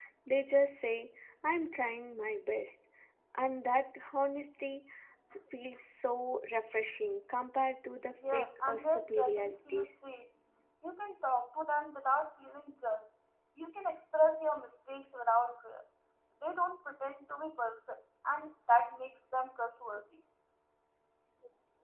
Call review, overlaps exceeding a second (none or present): present